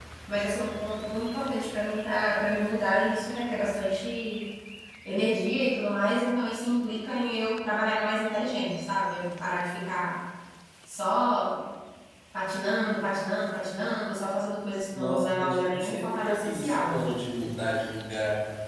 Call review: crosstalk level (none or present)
present